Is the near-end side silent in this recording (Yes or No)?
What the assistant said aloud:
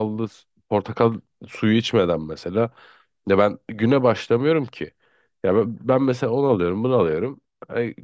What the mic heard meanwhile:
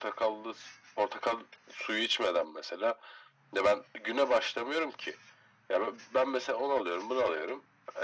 Yes